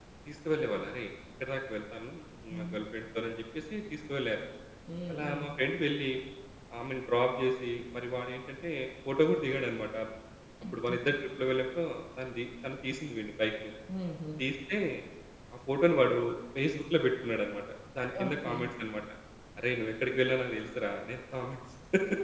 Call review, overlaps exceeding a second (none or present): none